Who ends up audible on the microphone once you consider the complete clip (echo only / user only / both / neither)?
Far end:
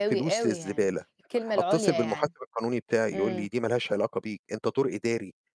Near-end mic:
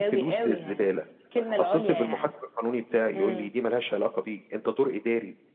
echo only